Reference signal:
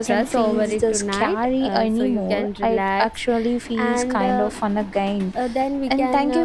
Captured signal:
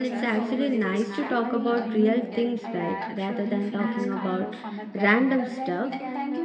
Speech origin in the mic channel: both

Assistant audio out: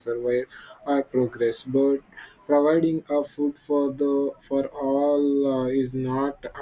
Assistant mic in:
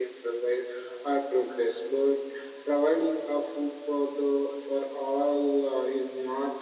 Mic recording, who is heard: echo only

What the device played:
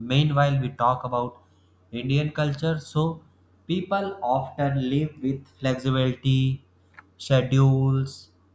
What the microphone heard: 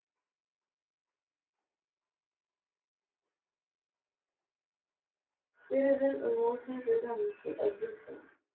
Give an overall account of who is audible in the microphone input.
user only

